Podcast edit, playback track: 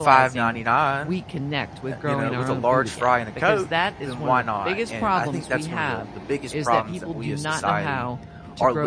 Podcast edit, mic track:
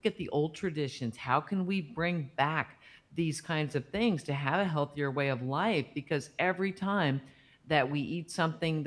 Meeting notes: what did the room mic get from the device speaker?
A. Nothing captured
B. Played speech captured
A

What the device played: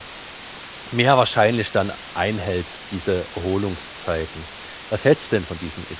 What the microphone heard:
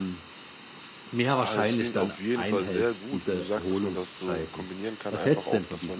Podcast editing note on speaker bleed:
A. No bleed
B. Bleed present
B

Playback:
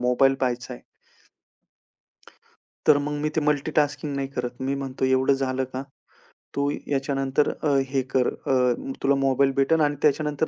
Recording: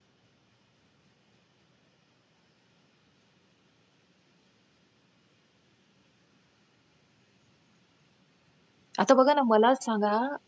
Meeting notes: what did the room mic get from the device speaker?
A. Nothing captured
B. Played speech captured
A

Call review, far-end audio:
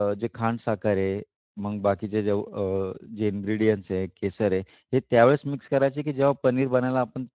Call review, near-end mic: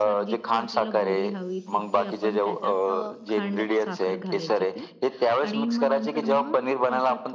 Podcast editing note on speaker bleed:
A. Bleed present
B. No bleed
A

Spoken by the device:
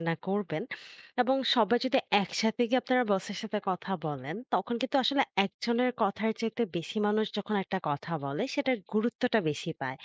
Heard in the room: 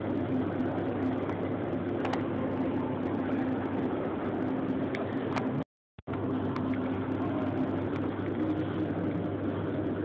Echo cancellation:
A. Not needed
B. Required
A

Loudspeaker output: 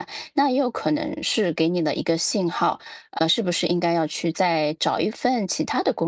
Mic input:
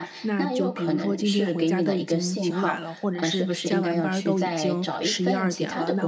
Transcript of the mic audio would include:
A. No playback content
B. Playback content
B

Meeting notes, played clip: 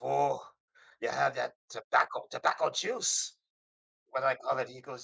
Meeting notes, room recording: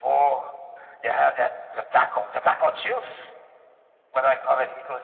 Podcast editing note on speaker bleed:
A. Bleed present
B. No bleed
A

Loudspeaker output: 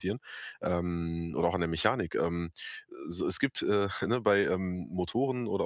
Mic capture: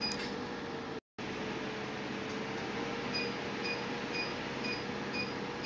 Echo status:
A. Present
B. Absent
B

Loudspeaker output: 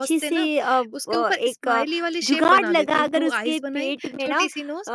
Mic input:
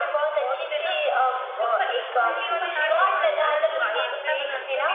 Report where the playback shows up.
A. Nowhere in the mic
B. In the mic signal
B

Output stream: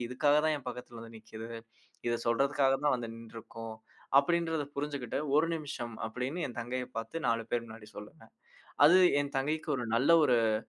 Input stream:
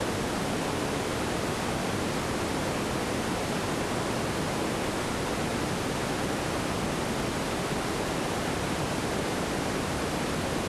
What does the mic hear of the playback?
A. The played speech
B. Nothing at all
B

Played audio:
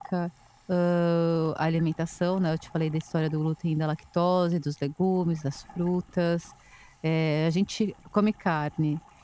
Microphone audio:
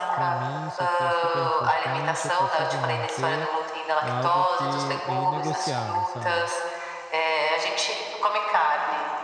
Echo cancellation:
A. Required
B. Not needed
A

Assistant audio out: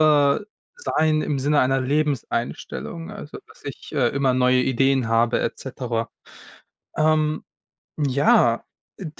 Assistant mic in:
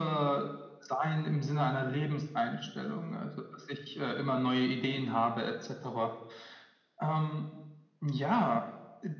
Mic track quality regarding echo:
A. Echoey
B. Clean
A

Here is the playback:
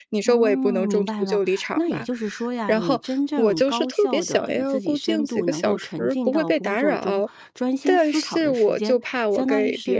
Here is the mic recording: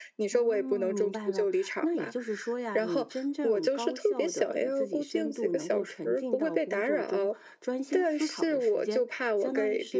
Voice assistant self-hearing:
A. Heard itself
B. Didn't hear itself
A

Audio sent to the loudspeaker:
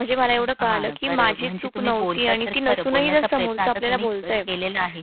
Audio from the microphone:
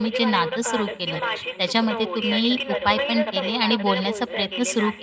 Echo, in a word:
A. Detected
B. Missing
A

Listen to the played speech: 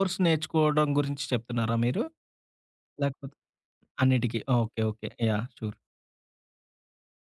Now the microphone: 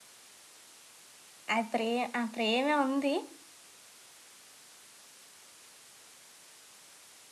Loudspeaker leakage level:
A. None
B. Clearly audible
A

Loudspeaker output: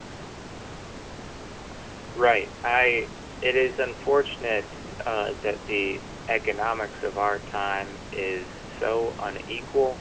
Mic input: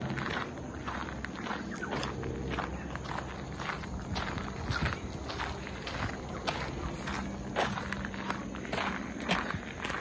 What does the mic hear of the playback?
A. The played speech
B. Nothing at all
B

